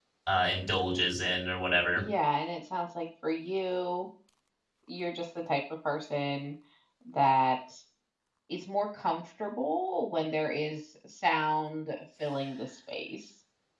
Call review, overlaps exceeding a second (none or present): none